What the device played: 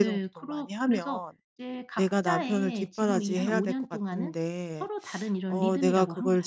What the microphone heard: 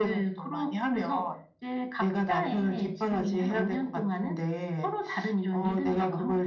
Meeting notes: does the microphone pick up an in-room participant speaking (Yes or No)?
No